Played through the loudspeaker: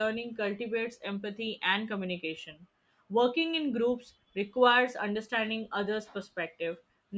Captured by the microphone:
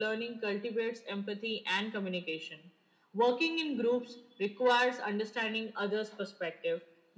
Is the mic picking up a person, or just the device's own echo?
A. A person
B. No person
B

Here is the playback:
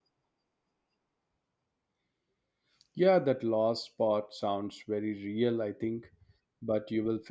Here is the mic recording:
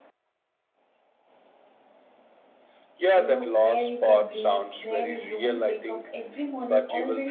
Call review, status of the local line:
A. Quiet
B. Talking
B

